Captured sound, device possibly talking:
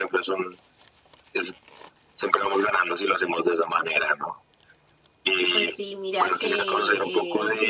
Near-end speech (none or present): present